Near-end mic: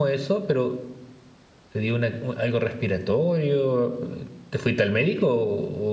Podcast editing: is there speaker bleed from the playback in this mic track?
No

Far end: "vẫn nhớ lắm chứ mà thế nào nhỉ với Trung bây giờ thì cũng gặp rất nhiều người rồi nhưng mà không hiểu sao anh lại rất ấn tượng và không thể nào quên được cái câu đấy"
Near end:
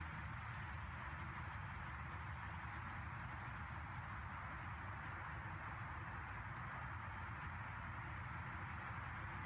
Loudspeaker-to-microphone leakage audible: No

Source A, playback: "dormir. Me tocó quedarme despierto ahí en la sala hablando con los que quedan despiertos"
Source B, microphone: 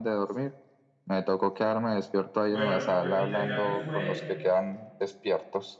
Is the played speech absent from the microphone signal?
No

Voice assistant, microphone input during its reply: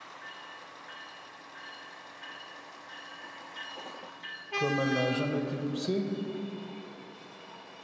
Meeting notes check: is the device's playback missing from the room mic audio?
Yes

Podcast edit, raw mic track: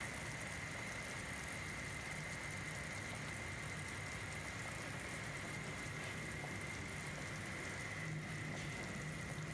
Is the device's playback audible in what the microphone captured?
No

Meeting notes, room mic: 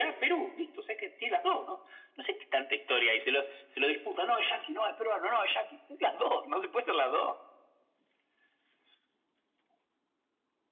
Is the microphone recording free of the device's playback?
No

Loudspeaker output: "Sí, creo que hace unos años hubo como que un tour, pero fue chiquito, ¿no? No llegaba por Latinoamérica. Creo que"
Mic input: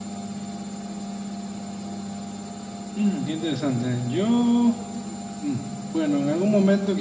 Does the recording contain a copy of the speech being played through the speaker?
No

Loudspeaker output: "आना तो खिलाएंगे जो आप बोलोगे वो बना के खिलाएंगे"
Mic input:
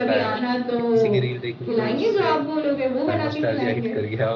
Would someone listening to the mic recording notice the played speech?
Yes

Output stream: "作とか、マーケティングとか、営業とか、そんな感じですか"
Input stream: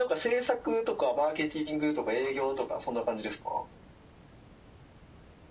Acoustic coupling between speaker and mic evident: Yes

